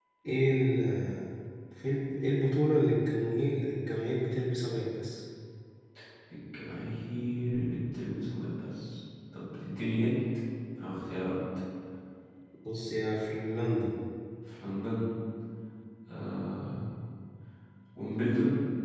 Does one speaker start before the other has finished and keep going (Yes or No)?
No